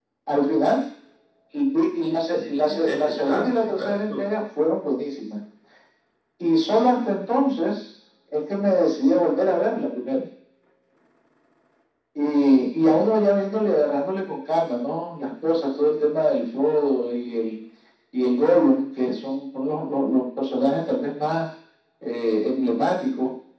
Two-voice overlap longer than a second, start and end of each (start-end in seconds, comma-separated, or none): 2.0-4.0